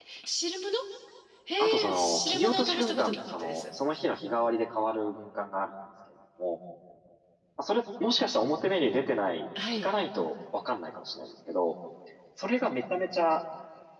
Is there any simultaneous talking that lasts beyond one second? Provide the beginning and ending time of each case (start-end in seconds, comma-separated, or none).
1.6-3.6